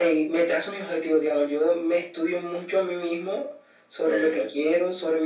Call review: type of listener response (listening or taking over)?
listening